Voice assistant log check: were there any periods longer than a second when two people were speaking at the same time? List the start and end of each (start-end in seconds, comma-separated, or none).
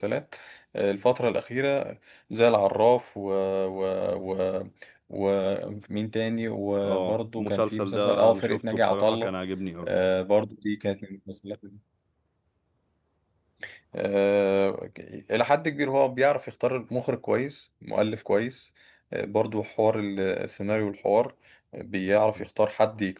6.8-9.3